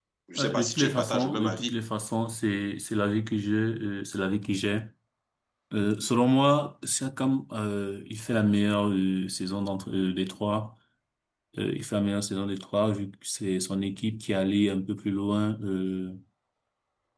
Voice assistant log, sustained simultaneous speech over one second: present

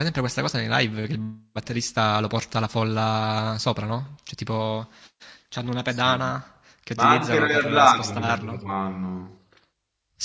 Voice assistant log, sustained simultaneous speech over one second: present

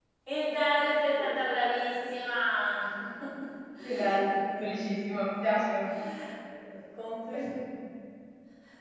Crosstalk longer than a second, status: none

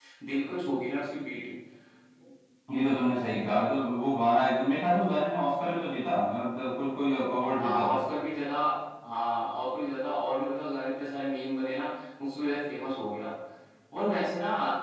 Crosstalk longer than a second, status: none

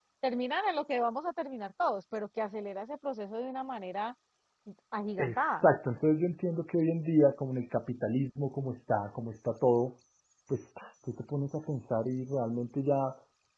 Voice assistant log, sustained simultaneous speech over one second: none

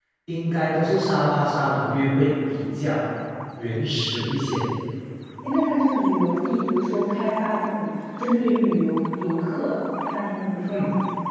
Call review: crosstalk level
none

